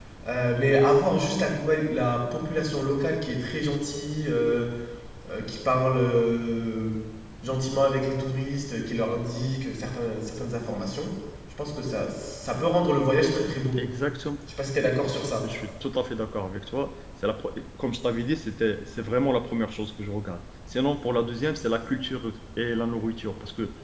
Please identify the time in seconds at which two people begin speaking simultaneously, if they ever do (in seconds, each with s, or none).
none